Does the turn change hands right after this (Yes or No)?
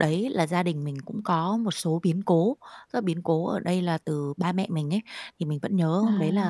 No